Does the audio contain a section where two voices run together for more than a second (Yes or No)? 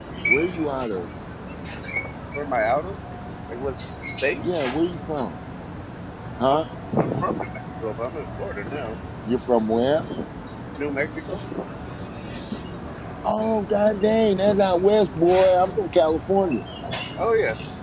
No